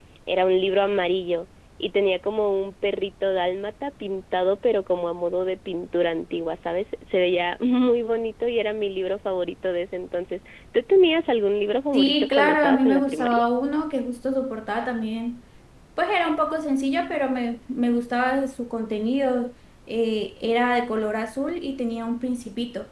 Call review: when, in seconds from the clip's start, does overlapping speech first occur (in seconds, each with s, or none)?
11.9 s